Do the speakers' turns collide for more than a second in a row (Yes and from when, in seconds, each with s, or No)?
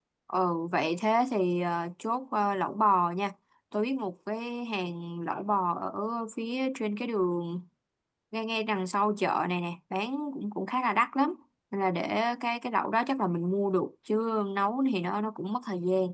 No